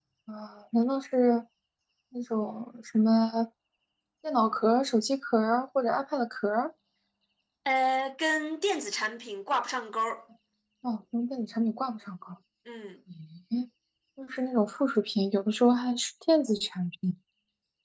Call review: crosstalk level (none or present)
none